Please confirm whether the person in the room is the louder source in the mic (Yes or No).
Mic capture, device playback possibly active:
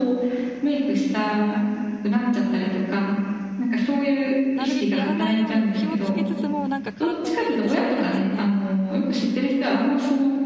No